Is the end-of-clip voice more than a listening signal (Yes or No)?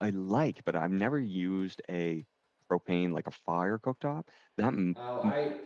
Yes